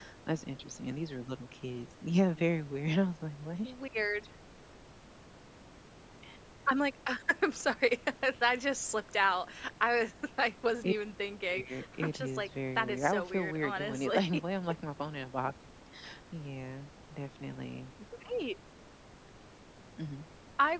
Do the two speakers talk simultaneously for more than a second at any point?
Yes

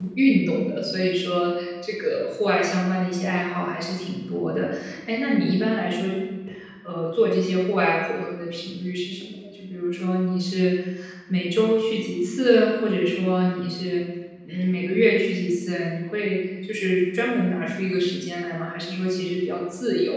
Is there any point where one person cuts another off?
No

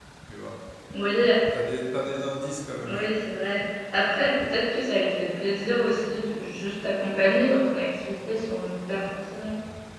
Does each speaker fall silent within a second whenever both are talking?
Yes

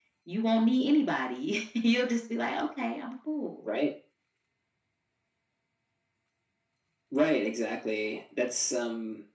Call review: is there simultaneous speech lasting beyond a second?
No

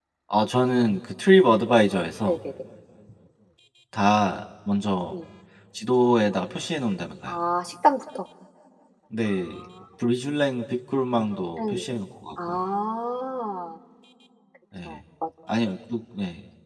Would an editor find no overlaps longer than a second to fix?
Yes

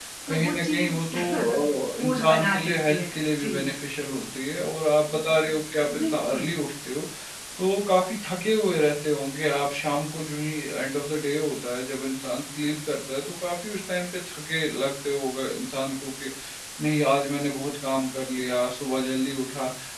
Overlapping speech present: Yes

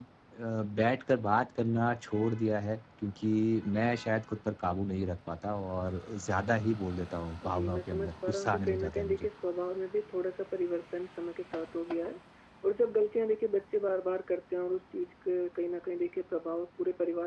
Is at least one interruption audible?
Yes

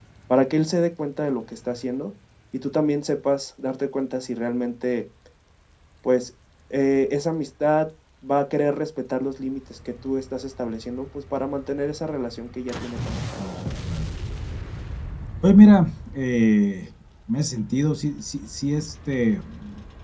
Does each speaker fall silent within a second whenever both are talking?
Yes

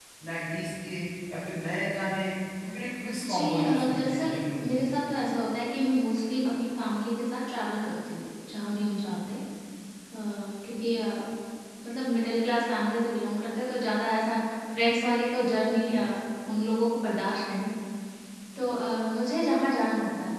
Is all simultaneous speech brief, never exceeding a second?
No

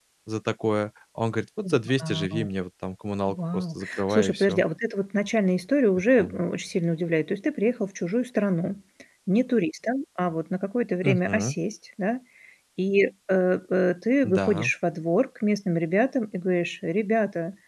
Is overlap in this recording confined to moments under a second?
No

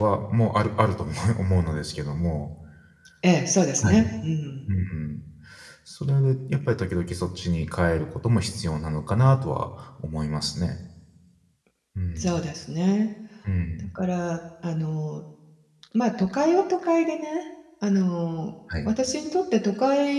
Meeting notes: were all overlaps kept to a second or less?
Yes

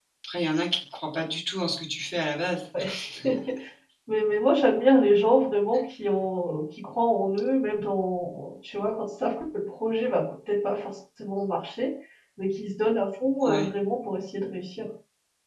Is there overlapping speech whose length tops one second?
No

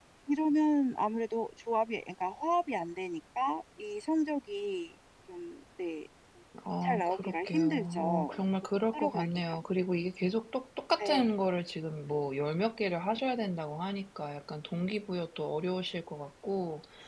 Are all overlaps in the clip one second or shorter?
No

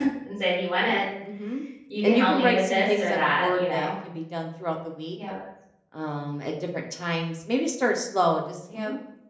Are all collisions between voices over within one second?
No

